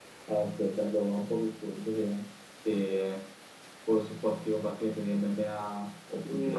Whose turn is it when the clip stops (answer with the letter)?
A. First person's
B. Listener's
B